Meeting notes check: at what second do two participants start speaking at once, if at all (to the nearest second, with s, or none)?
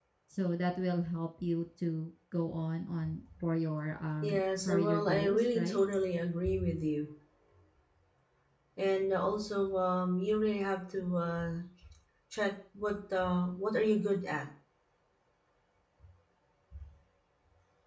4 s